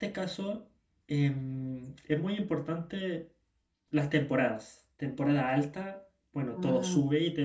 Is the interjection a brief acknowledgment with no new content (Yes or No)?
Yes